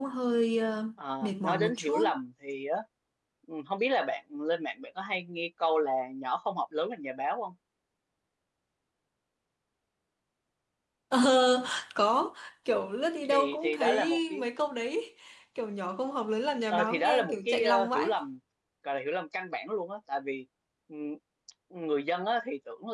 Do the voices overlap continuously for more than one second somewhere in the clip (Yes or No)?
Yes